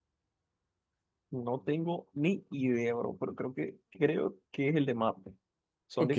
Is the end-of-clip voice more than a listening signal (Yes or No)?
Yes